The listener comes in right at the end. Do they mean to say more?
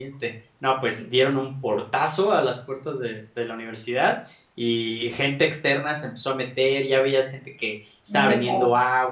No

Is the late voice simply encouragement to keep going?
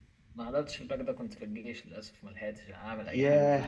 No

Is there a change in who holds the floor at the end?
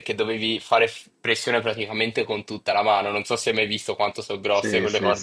Yes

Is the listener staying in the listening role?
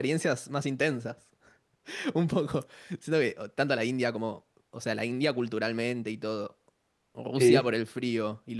Yes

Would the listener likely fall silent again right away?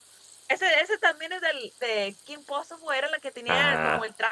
Yes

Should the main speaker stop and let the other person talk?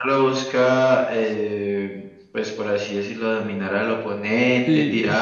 No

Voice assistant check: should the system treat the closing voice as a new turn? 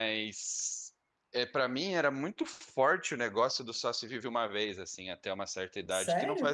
No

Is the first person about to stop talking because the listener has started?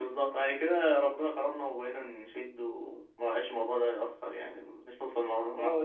Yes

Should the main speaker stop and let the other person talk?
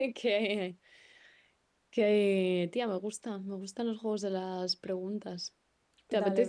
Yes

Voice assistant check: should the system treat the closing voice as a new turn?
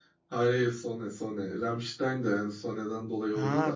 Yes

